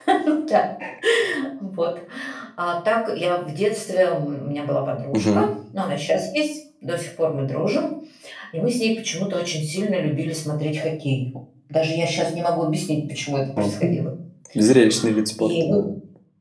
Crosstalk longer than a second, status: none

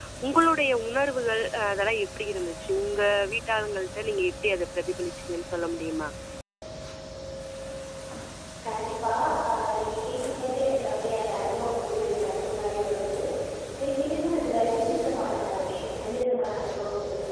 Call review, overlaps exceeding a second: none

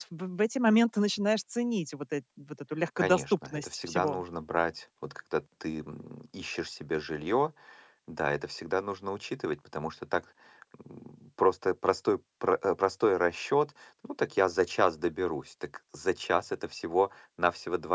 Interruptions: present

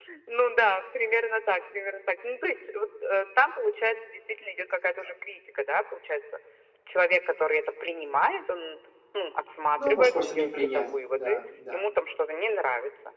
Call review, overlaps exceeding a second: present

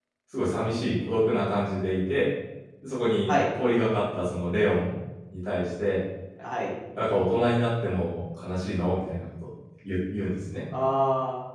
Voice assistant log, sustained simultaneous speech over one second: none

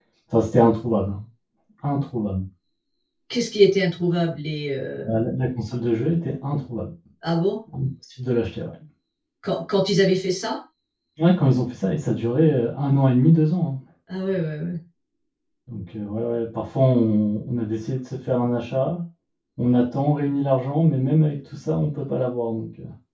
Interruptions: none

